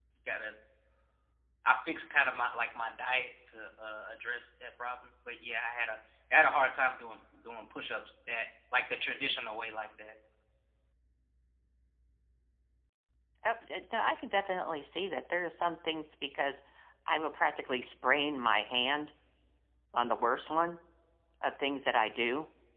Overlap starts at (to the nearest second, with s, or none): none